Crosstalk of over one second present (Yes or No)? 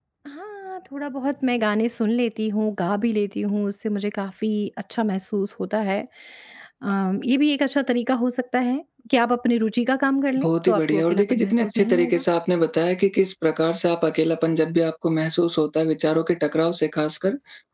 Yes